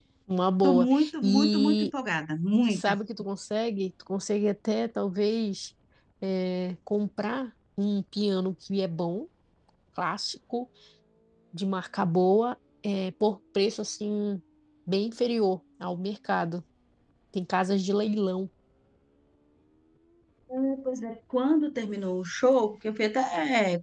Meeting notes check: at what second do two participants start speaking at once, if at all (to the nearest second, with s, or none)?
1 s